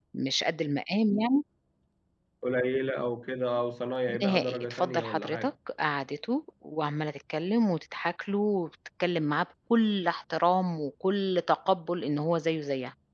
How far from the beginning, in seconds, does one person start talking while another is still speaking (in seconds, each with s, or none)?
4.1 s